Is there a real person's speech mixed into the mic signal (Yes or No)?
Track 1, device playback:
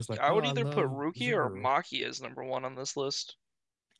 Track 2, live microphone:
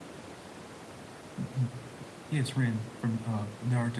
Yes